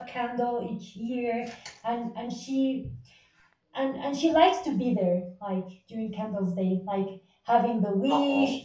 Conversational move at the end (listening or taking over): listening